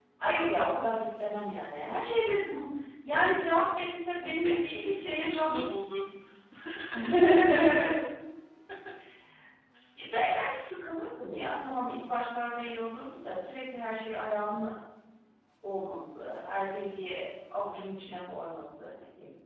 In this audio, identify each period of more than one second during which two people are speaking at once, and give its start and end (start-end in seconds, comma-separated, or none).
4.4-5.6